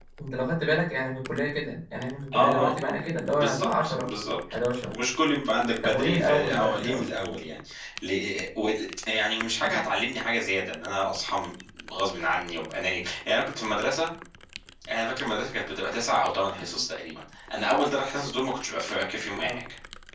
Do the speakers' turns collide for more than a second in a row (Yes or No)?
Yes